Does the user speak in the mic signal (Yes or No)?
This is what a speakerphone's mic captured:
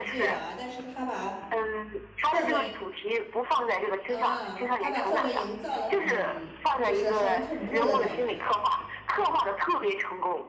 Yes